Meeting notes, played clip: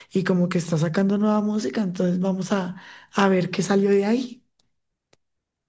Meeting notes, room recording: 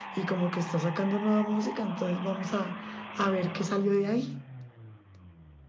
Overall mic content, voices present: echo only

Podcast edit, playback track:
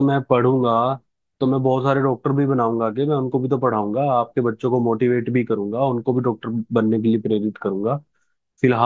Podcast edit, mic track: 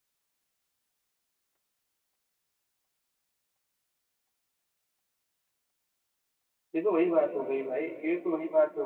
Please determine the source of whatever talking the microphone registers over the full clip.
user only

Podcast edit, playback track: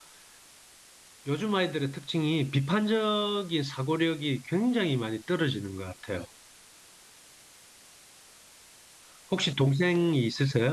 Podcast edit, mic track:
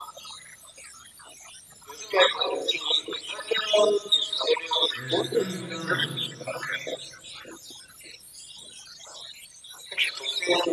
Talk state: both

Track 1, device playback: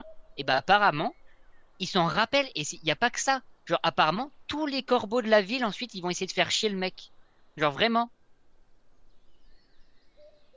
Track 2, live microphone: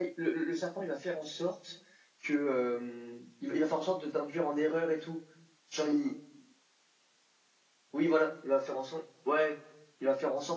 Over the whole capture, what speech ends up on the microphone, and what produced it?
user only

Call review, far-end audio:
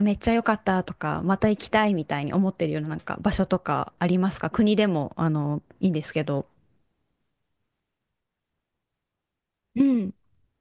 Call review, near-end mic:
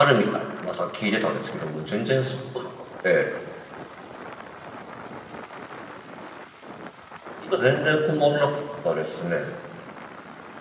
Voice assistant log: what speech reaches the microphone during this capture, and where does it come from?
user only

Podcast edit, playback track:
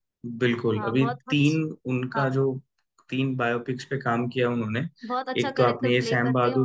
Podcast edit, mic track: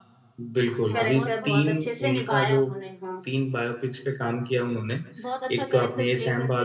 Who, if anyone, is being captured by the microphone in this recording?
both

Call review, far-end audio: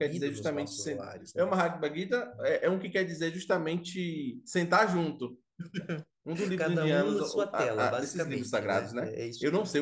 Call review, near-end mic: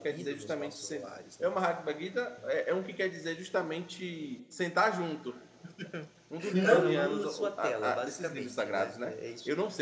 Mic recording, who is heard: both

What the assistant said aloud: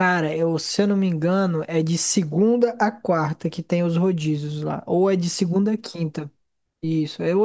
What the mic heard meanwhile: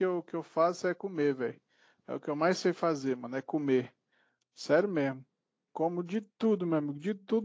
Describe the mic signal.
user only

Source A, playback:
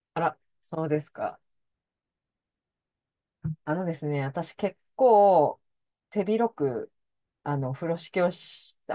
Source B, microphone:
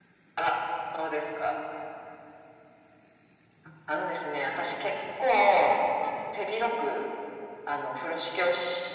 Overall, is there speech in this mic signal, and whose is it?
echo only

